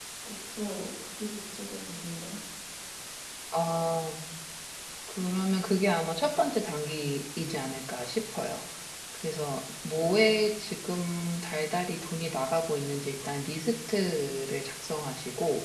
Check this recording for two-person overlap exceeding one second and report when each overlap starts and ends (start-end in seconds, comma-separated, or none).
none